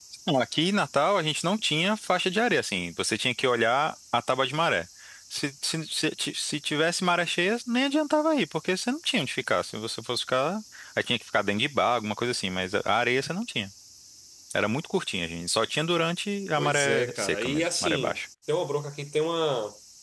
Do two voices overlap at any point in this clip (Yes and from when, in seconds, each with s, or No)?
Yes, from 16.6 s